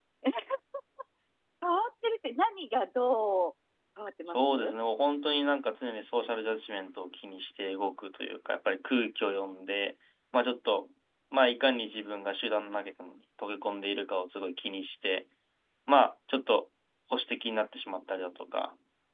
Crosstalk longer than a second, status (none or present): none